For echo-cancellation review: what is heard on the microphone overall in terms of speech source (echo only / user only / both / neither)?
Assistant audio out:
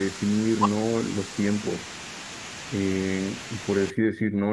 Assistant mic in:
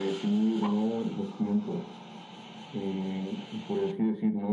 echo only